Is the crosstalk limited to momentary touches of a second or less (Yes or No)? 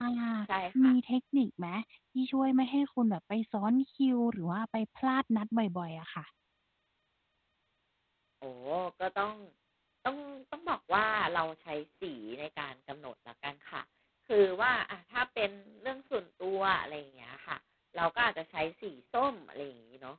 Yes